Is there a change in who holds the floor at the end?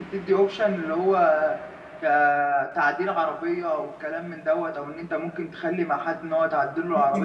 Yes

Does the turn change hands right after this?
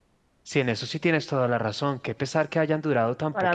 Yes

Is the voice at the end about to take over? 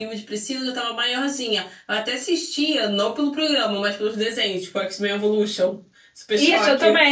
Yes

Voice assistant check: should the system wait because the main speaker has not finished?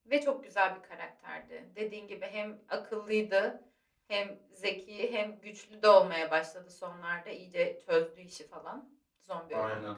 Yes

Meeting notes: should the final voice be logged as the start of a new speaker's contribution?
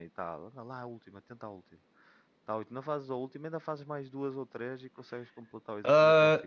Yes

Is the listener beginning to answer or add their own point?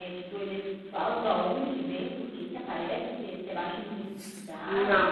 Yes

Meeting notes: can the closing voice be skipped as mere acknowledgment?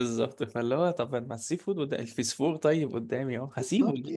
No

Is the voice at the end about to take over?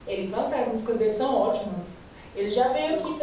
No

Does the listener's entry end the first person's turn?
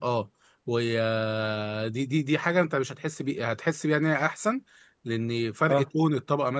No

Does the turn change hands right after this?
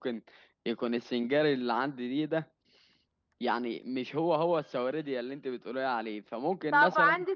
Yes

